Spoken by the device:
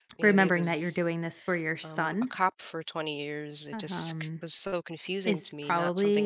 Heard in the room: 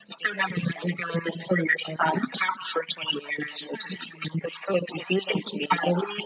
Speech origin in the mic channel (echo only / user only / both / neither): echo only